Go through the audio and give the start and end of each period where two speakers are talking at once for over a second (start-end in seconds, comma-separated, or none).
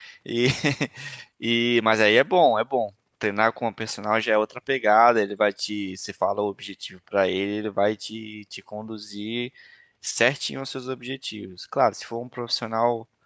none